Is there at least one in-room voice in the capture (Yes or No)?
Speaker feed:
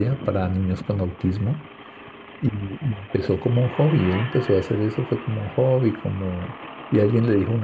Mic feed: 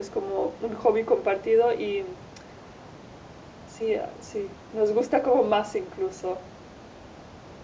Yes